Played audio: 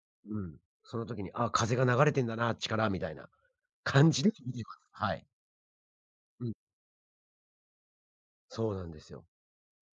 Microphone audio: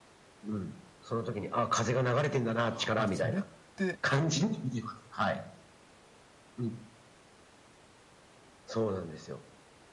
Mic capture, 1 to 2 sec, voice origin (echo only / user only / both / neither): echo only